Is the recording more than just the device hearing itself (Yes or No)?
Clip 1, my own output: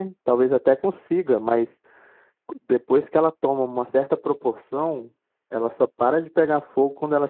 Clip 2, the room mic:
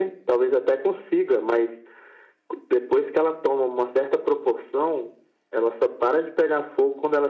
No